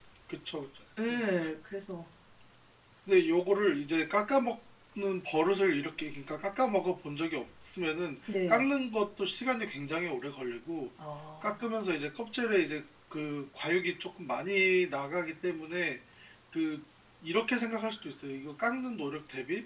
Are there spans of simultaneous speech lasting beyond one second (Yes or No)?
No